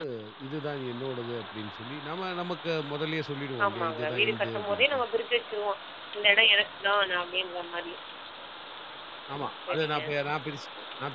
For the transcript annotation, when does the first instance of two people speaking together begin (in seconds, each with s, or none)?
3.6 s